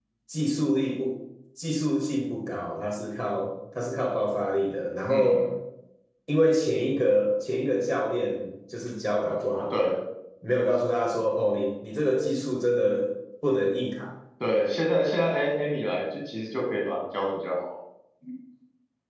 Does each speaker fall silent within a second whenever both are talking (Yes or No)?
Yes